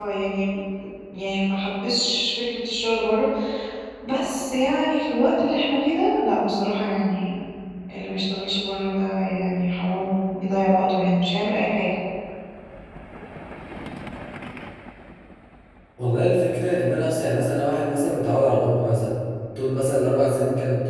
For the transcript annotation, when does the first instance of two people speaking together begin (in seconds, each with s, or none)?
none